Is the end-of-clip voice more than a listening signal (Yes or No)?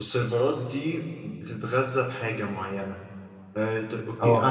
No